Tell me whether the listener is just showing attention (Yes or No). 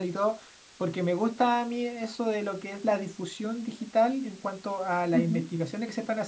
Yes